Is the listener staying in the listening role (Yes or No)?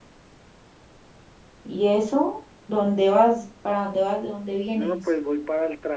No